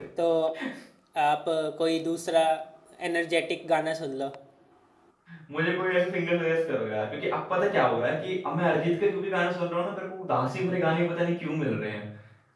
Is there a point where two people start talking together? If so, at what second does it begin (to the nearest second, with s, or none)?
none